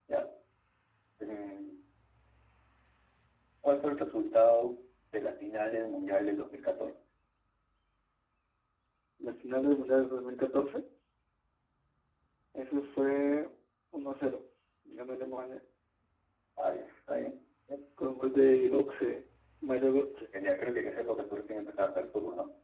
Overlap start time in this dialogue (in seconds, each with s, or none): none